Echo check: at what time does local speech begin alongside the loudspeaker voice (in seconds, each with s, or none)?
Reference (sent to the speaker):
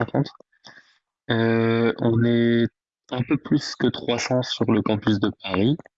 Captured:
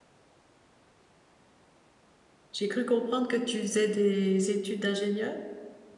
2.5 s